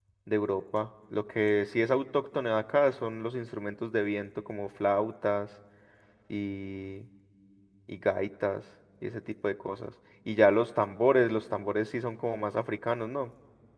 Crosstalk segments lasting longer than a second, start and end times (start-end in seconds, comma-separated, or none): none